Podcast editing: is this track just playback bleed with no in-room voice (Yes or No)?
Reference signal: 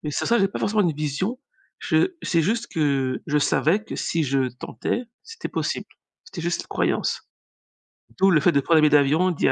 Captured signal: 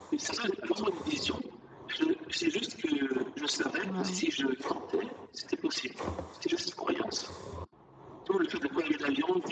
No